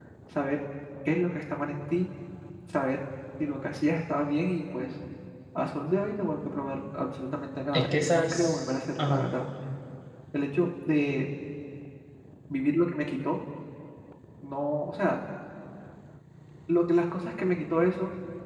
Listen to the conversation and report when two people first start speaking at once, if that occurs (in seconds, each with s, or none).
7.7 s